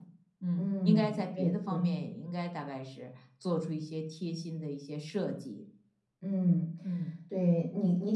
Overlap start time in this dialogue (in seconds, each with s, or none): 0.6 s